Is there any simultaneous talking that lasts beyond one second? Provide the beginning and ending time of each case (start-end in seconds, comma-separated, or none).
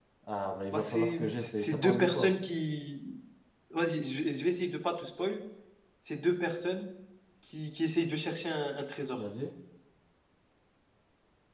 0.7-2.3